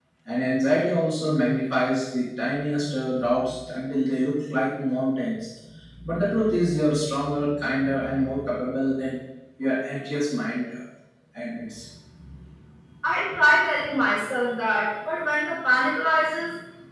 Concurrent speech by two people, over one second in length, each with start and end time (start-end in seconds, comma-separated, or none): none